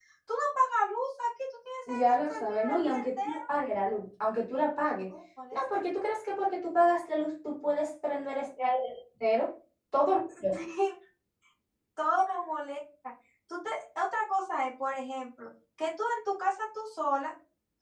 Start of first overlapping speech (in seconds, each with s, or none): 1.9 s